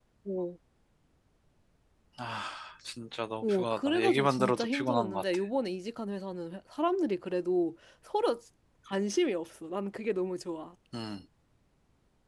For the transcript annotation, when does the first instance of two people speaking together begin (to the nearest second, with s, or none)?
3 s